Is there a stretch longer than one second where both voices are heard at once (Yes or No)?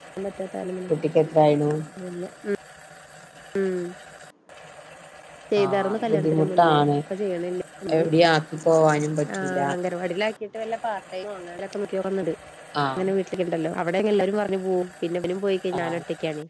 Yes